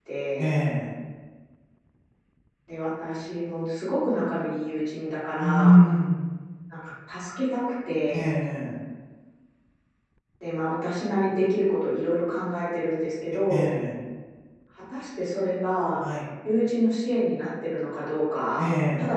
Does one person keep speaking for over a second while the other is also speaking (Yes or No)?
No